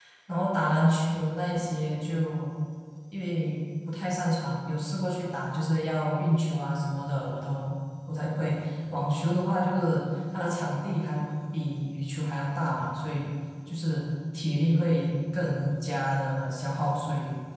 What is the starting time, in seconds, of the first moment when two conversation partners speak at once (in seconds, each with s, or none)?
none